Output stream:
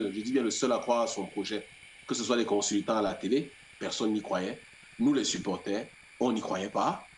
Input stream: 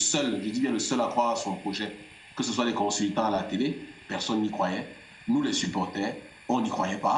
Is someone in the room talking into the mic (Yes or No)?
No